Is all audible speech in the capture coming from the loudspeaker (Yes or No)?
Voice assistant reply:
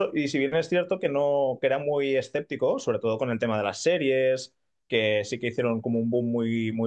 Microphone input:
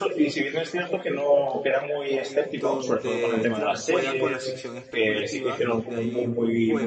No